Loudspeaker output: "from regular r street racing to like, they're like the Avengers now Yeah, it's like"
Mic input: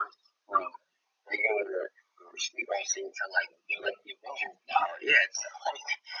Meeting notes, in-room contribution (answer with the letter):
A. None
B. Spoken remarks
A